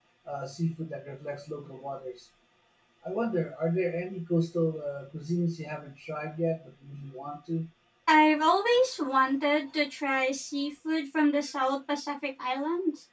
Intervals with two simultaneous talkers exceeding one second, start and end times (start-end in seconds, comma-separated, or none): none